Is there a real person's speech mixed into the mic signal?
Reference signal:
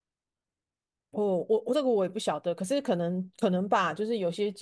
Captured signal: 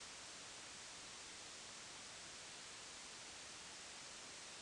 No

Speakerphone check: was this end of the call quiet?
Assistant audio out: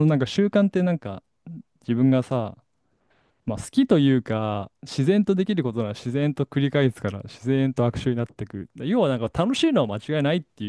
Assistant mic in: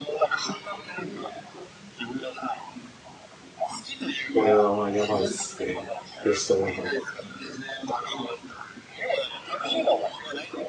No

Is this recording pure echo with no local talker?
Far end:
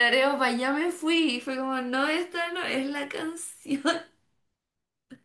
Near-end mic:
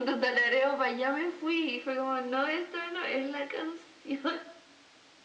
Yes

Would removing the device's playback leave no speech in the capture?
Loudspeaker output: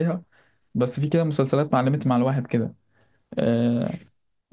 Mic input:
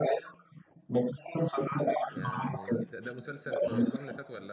No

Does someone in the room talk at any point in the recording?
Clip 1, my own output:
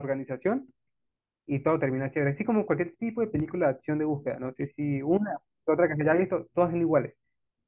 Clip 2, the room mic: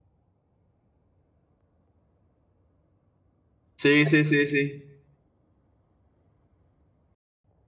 Yes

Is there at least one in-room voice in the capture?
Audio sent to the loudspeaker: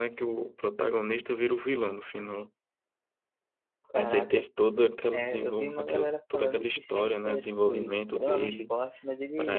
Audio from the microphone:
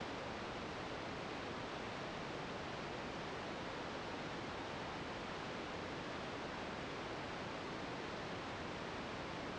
No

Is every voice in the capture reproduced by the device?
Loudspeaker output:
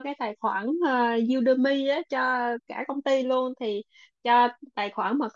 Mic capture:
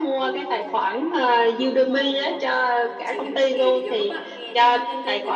No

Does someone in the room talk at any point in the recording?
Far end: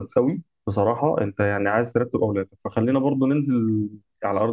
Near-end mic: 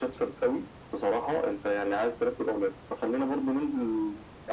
No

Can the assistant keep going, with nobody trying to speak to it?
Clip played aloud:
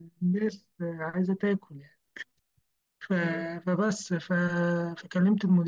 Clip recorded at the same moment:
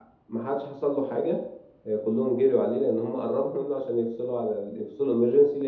No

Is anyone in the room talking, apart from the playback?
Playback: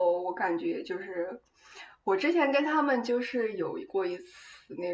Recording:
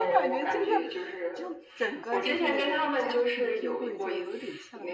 Yes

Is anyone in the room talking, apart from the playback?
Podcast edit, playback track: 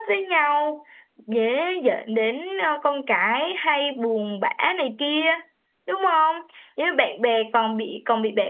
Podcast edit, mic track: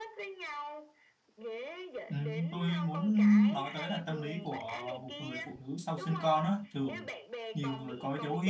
Yes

